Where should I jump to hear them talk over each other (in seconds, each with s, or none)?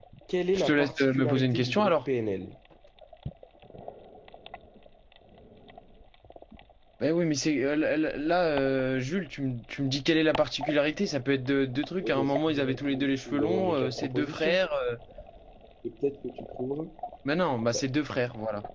0.5 s